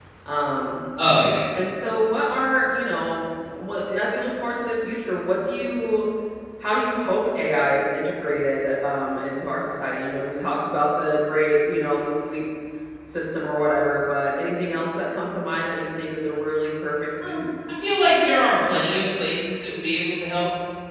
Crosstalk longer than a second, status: none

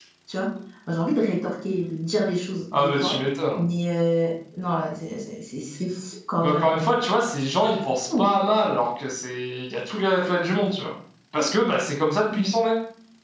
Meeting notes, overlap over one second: none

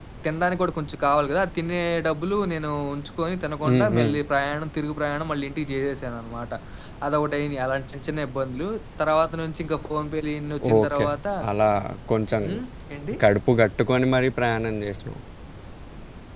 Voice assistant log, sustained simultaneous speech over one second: none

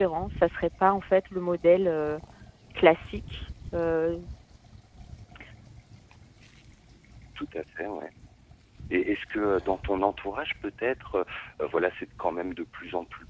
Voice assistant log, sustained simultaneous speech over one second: none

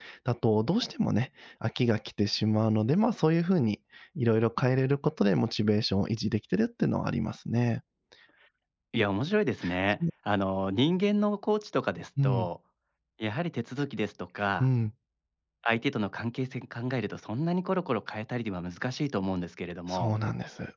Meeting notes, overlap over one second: none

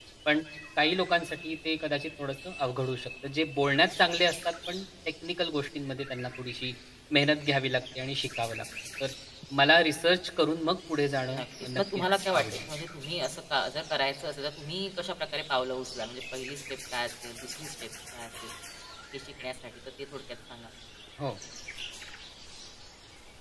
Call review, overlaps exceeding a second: present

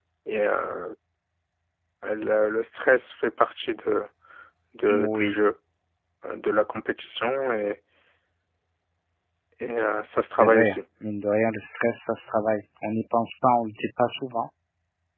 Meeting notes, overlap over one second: none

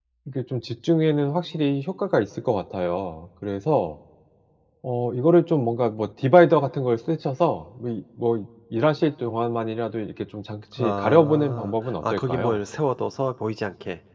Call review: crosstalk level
present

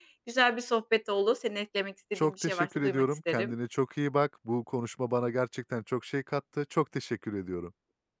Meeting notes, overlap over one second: present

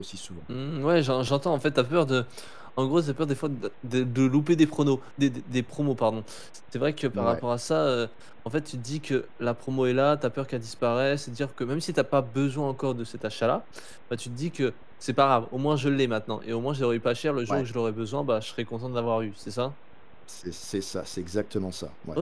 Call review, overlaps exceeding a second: none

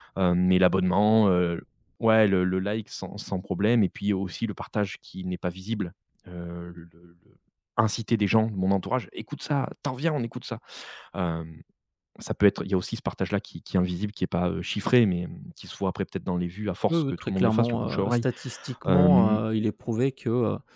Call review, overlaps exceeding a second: present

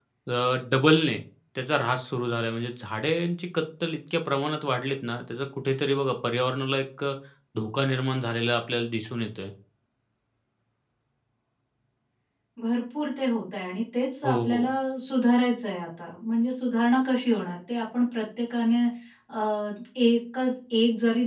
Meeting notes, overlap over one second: none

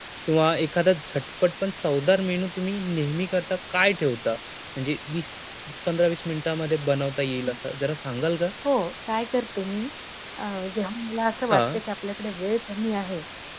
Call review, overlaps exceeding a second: none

